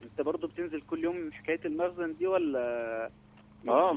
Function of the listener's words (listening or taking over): taking over